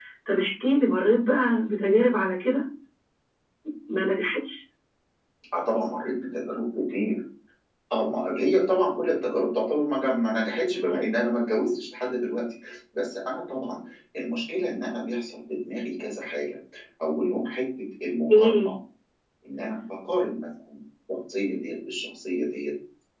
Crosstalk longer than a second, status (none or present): none